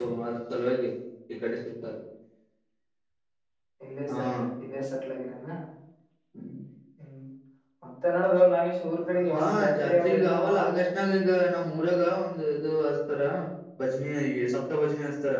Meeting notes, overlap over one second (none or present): present